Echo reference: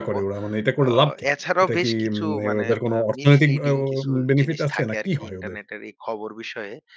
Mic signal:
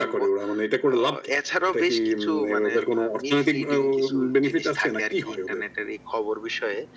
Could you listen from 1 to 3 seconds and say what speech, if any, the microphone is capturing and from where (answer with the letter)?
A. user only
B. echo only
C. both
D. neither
B